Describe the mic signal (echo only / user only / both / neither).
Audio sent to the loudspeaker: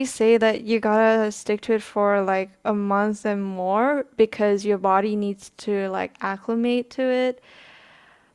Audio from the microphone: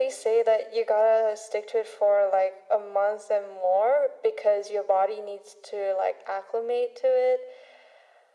echo only